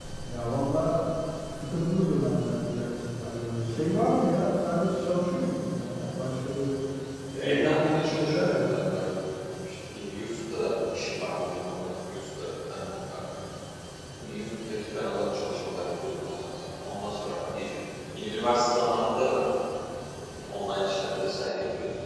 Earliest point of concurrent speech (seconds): 7.4 s

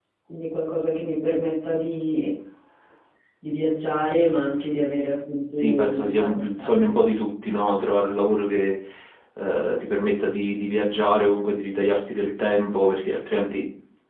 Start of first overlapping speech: 5.5 s

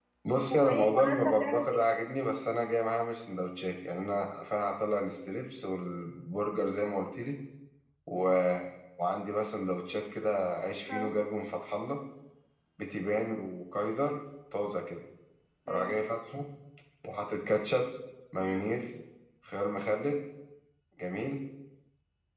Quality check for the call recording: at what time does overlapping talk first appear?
0.5 s

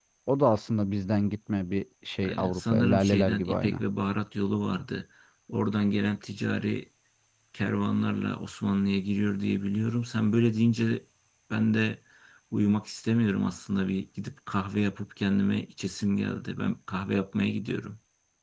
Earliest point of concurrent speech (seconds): 2.2 s

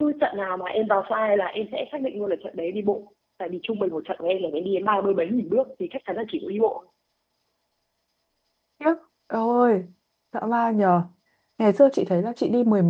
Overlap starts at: none

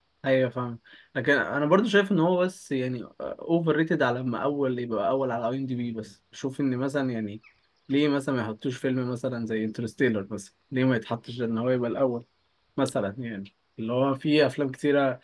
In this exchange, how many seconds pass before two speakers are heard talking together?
none

